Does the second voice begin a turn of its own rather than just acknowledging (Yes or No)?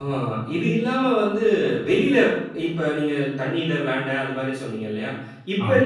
No